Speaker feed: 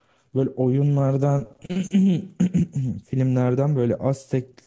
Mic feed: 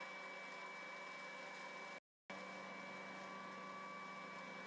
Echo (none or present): none